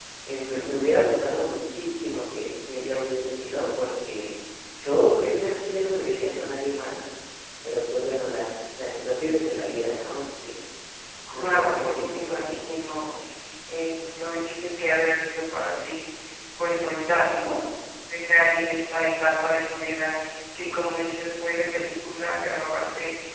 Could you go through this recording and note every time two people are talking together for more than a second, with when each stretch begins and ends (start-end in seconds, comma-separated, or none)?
11.3-12.7